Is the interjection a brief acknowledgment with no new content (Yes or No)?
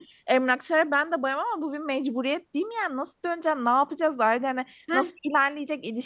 Yes